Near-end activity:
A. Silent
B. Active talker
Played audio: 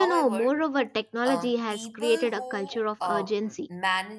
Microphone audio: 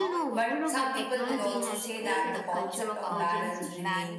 B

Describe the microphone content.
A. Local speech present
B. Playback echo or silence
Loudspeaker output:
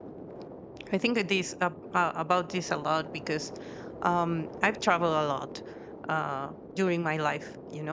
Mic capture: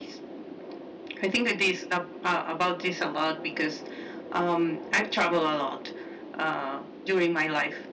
B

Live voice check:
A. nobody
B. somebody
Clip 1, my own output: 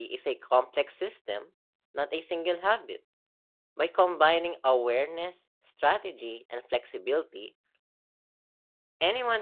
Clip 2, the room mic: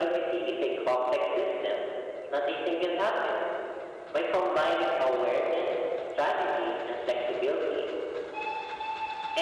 A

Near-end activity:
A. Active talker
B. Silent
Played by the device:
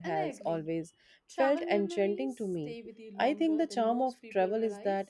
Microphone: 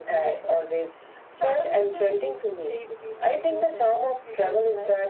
B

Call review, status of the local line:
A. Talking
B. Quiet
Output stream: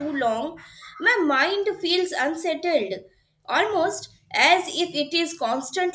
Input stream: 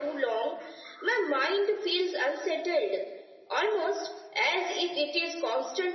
B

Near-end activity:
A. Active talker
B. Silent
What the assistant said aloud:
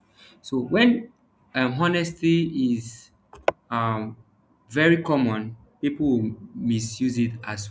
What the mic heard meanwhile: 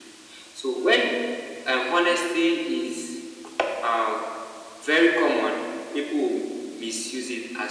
B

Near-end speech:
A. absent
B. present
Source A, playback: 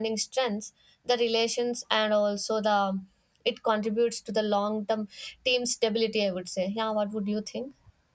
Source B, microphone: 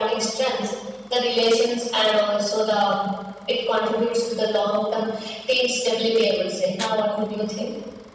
A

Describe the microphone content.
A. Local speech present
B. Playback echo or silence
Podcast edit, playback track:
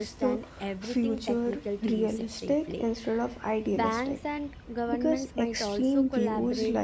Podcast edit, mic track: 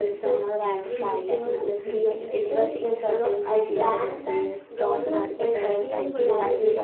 A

